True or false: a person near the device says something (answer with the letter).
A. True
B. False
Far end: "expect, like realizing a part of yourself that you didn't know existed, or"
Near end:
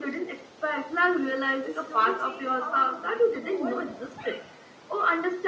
A